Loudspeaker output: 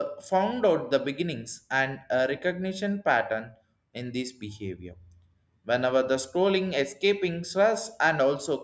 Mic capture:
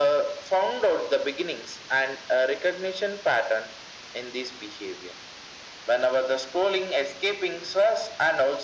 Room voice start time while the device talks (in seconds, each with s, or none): none